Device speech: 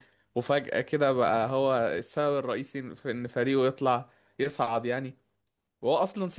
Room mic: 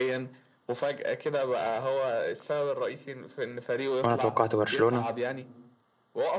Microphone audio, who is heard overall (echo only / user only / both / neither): both